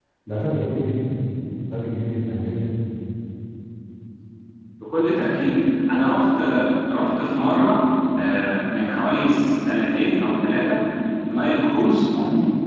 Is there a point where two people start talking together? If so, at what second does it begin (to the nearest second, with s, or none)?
none